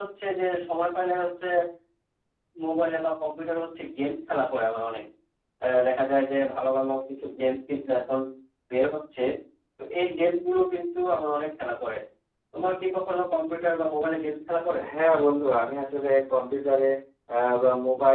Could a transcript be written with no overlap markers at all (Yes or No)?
Yes